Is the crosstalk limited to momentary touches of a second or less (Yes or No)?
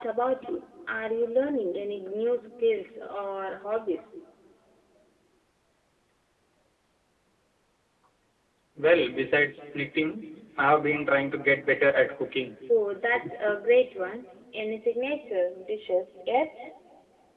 Yes